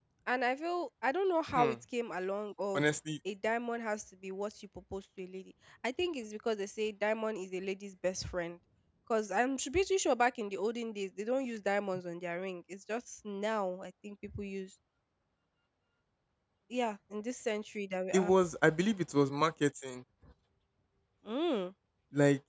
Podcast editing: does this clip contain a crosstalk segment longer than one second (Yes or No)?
No